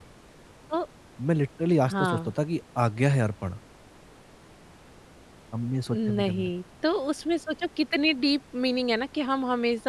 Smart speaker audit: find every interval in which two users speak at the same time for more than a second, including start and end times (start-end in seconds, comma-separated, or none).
none